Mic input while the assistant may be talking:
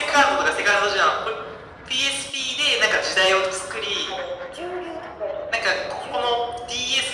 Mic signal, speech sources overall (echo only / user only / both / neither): echo only